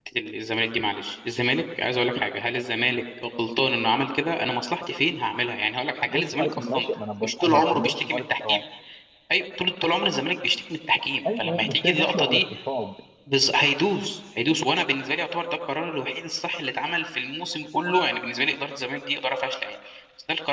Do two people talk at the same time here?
Yes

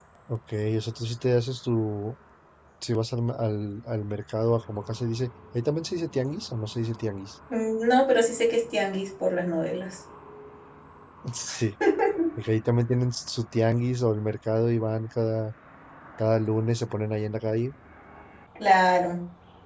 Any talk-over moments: No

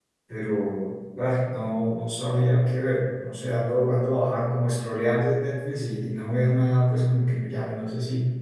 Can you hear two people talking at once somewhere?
No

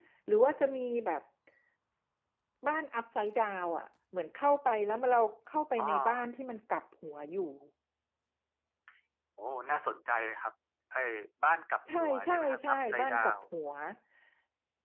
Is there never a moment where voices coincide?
No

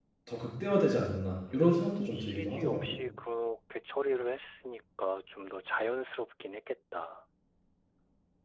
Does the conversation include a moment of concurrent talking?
Yes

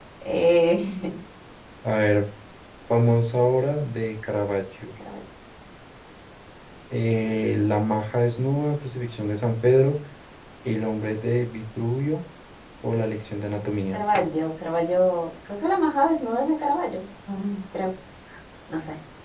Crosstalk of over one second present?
No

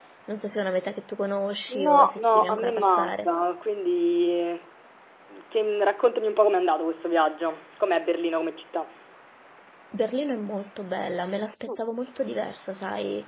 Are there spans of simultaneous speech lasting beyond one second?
Yes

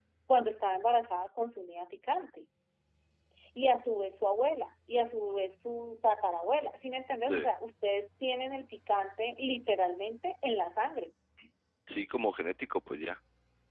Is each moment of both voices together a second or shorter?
Yes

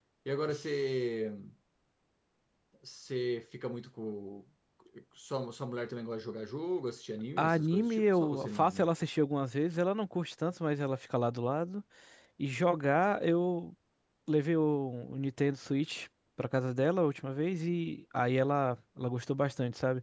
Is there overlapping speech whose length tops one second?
Yes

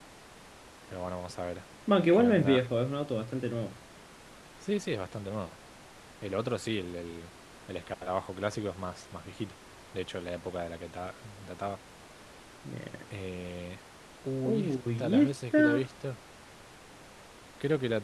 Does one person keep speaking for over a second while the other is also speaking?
Yes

